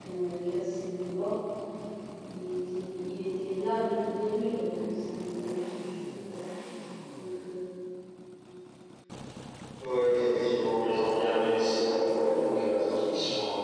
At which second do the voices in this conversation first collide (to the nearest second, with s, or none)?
none